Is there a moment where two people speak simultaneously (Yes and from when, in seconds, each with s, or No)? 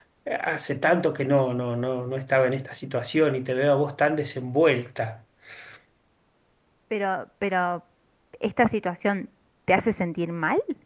No